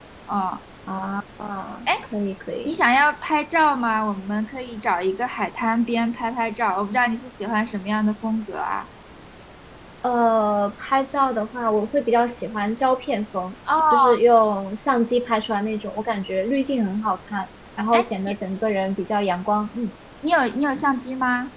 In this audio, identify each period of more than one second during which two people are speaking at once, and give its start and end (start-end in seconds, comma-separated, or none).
none